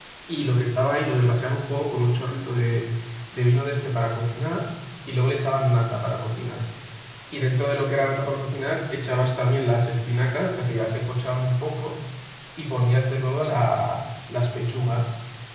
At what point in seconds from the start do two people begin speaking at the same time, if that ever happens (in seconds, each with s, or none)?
none